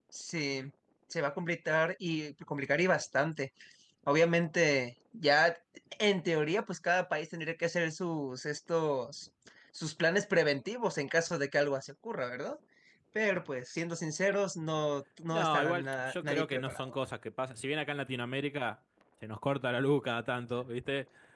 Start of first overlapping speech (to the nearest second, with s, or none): 15 s